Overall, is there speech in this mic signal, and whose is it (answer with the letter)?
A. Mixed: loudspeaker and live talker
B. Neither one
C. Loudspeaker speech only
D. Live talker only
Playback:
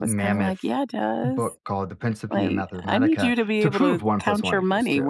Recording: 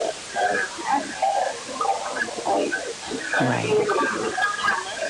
A